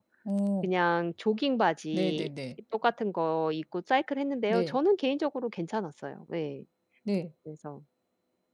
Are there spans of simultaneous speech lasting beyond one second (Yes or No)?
No